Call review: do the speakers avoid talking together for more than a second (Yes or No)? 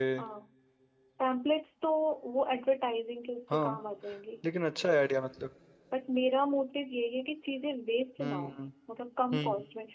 Yes